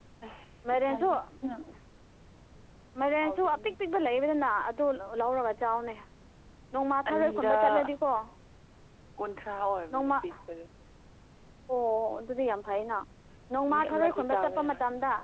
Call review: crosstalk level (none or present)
present